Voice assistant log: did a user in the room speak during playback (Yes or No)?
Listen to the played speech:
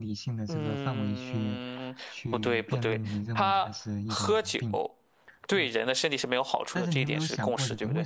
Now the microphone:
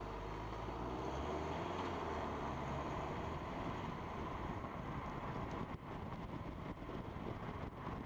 No